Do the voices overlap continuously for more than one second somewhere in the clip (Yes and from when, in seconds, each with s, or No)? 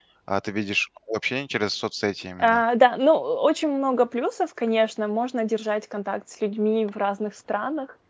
No